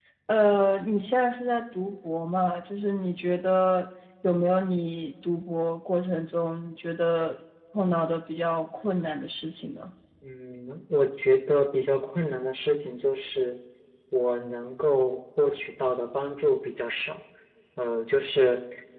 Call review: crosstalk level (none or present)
none